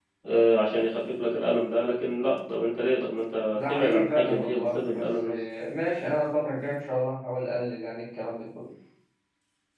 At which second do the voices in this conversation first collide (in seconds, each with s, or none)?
3.5 s